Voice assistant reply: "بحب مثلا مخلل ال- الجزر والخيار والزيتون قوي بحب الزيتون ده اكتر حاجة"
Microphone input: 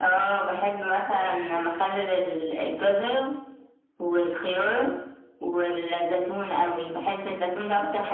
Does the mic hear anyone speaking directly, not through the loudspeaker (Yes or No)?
Yes